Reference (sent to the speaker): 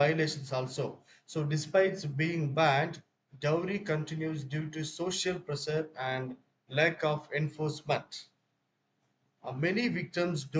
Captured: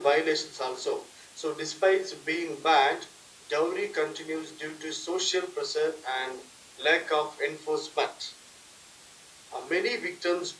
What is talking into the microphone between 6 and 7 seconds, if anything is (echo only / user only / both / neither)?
echo only